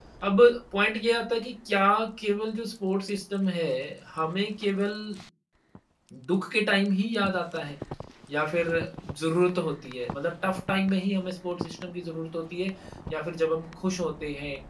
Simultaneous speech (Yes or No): No